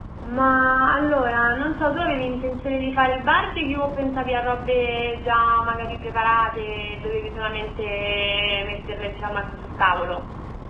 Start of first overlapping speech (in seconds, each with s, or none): none